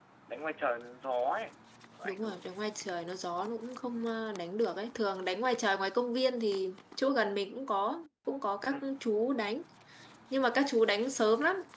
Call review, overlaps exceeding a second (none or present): none